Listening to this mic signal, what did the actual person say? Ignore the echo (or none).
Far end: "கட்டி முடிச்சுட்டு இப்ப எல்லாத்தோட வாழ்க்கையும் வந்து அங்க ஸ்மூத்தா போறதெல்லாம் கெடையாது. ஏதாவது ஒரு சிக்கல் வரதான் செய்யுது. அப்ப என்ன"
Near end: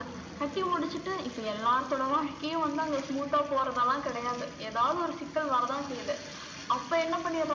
none